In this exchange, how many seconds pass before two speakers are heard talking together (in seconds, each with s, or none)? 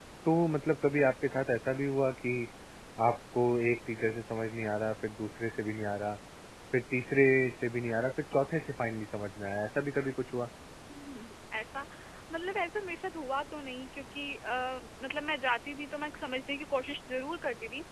none